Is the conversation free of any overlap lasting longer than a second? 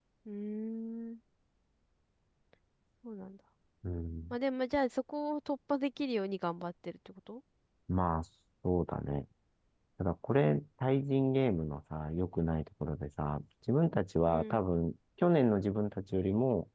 Yes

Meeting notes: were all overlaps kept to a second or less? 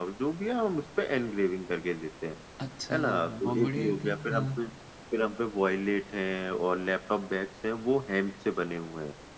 No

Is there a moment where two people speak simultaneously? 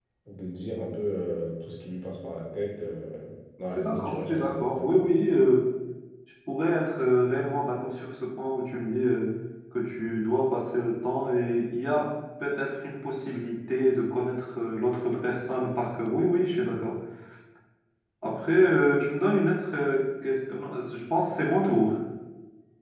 Yes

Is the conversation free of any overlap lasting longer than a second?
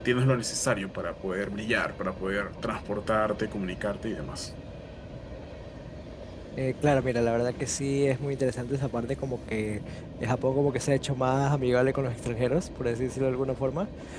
Yes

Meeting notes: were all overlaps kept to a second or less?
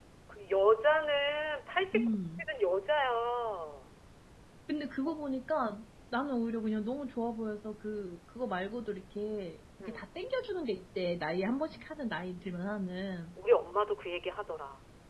Yes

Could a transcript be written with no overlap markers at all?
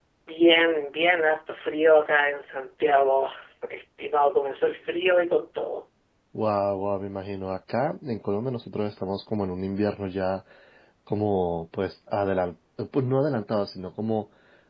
Yes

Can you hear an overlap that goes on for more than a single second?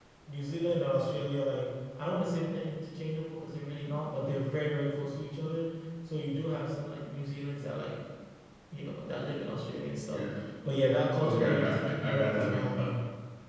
Yes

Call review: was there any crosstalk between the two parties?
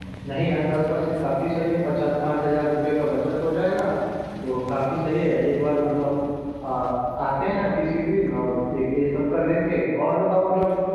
No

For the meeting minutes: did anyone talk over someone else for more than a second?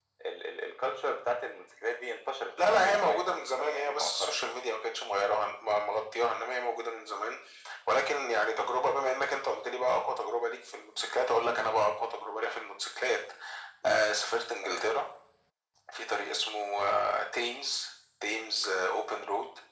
Yes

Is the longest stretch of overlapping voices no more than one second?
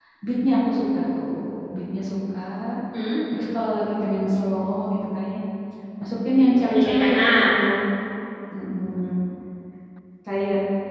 No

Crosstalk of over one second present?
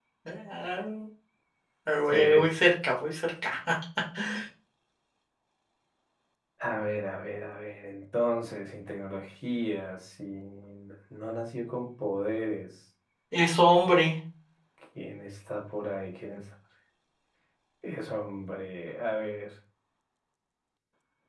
No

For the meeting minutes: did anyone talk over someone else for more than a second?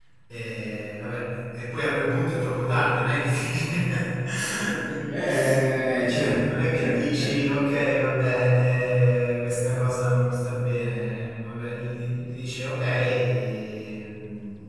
Yes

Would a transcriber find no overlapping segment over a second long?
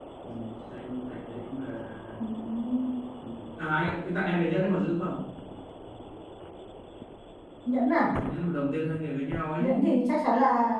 Yes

